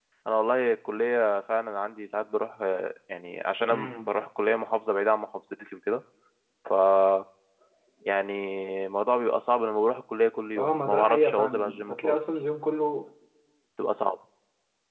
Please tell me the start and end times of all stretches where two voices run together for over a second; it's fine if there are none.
10.6-12.2

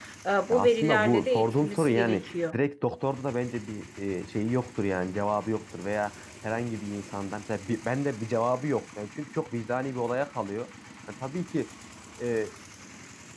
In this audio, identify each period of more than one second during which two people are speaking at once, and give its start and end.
0.5-2.6

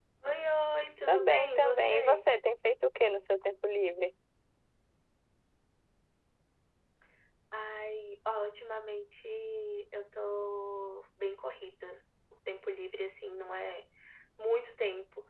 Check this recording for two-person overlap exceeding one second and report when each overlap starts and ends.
1.1-2.3

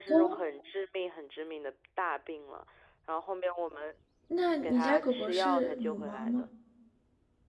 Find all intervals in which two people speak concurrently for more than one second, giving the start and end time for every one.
4.6-6.4

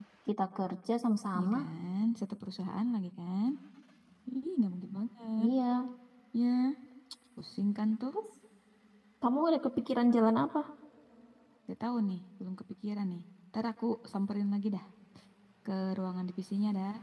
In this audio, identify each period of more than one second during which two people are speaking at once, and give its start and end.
none

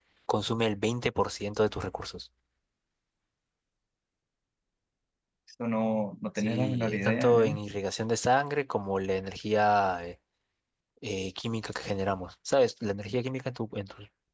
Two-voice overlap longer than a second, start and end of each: 6.4-7.6

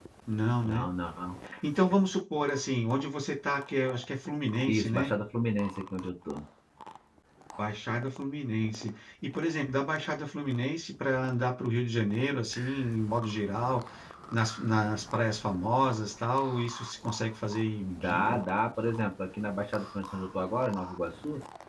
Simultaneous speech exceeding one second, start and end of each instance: none

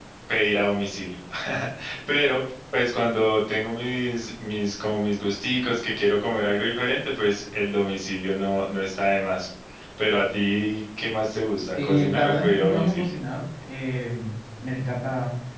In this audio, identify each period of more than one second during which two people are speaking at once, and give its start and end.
11.8-13.1

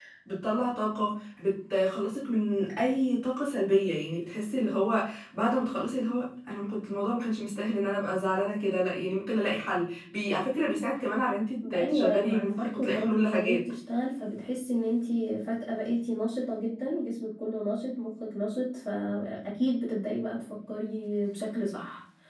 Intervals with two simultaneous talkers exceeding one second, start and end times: 11.6-13.6

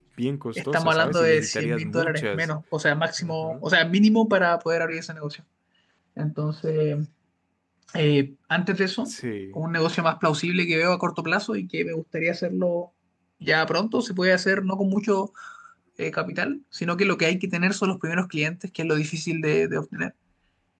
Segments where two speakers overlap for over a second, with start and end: 0.6-2.5

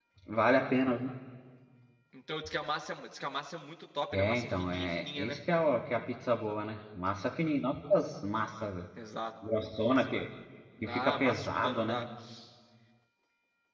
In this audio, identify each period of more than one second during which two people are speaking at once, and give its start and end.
4.1-5.4, 10.9-12.1

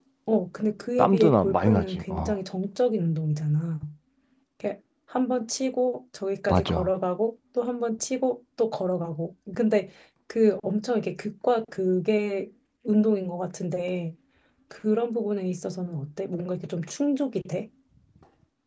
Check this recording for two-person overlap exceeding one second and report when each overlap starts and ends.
1.0-2.4

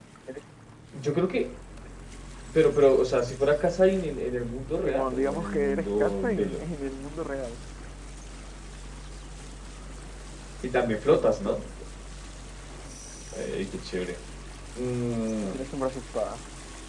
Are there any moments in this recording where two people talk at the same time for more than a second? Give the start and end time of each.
4.8-6.6

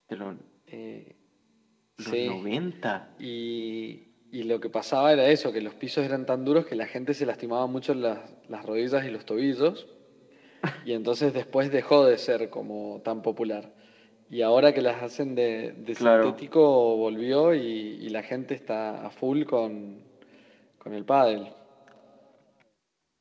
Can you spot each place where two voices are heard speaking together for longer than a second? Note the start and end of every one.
none

